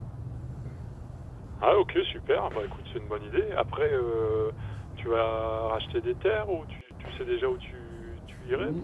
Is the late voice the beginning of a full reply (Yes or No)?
Yes